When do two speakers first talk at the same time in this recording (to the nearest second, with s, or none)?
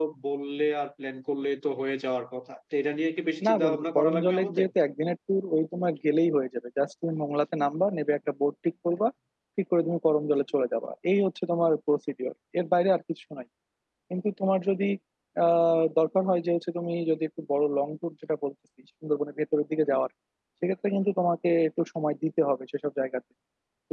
3 s